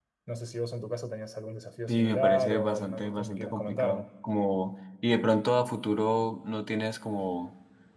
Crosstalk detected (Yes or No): Yes